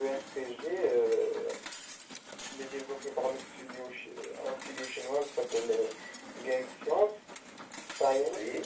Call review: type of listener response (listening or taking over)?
listening